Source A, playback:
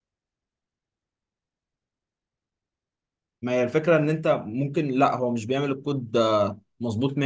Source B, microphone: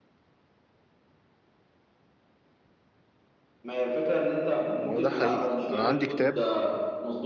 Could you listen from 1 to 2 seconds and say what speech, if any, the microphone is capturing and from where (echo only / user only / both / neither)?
neither